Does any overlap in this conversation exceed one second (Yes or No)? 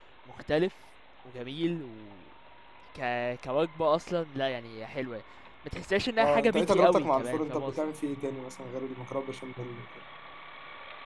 Yes